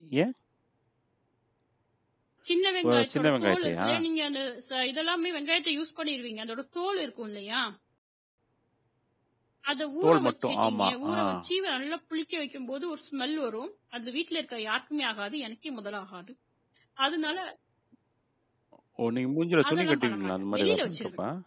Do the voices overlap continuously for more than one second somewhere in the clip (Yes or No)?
Yes